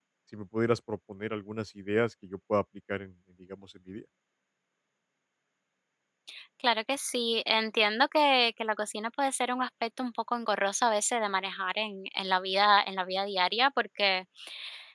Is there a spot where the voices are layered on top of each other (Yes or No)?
No